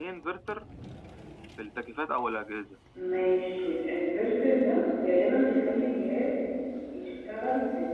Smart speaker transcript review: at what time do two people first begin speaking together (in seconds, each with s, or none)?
none